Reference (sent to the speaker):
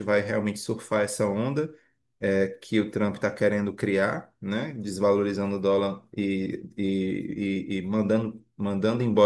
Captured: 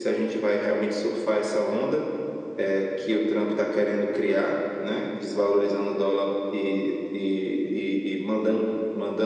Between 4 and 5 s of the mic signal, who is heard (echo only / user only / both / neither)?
echo only